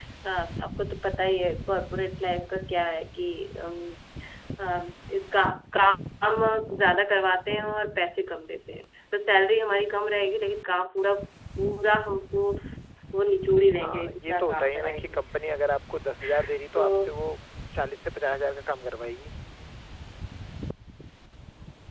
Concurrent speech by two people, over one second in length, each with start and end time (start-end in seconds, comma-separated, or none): 13.8-15.2